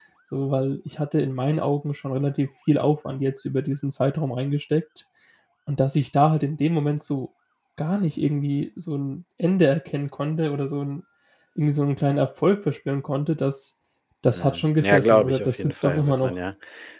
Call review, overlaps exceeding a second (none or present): present